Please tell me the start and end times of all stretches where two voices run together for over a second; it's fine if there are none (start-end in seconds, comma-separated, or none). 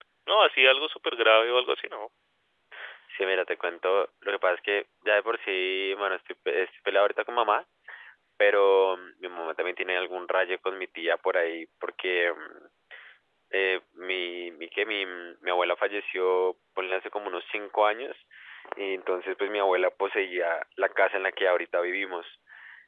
none